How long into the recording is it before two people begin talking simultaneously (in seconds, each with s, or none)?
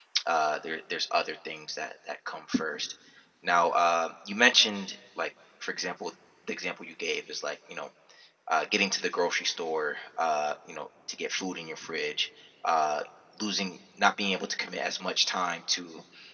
none